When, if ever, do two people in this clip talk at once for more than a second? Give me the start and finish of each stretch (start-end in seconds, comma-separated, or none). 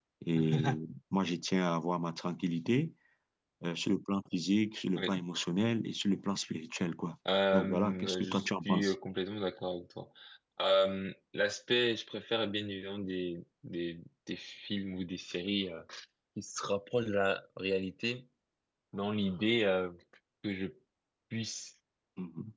7.5-8.9